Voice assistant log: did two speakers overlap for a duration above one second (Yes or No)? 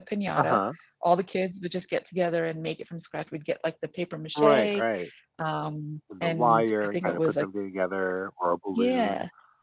Yes